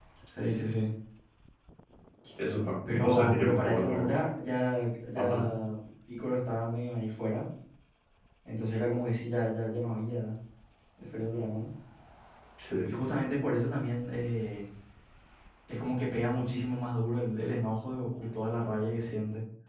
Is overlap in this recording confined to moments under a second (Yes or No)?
No